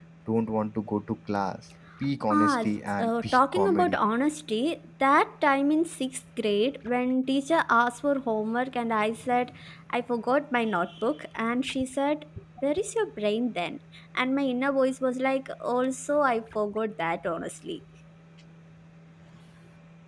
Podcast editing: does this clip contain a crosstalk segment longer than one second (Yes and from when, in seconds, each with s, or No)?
Yes, from 2.3 s